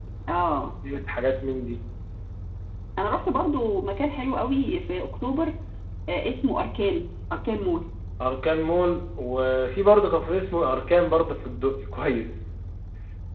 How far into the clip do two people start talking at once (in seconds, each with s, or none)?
none